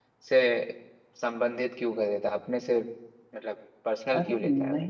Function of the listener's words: taking over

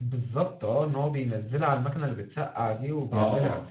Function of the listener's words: taking over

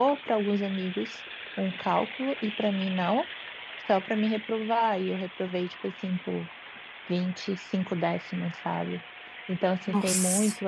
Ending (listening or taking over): listening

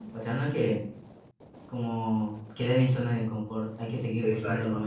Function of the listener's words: taking over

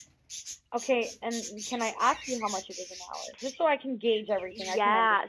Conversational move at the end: taking over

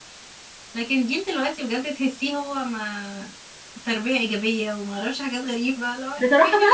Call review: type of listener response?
taking over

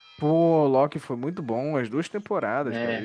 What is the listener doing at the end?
listening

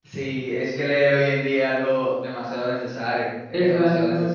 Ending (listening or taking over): taking over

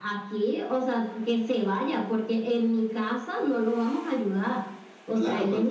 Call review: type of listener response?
taking over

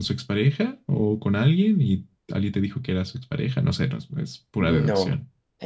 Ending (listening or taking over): taking over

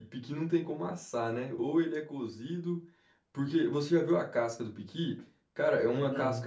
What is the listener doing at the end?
listening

